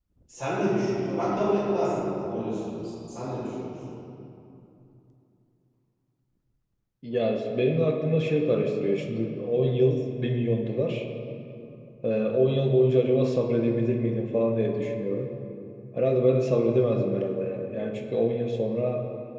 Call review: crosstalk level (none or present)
none